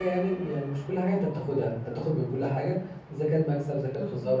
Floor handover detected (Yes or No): No